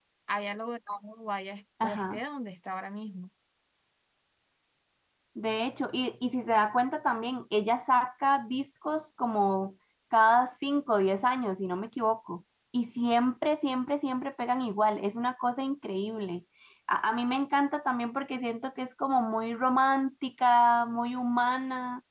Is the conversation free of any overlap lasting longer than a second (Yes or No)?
Yes